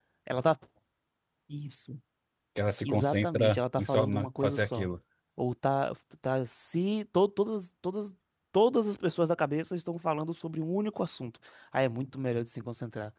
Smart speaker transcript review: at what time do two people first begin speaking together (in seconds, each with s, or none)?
2.9 s